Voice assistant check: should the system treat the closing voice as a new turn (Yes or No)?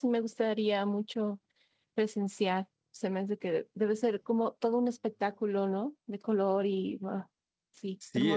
Yes